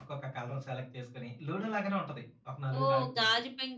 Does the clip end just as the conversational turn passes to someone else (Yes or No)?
Yes